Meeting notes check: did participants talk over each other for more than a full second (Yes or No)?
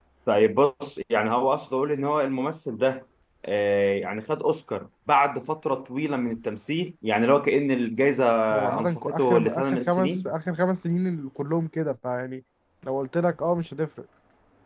Yes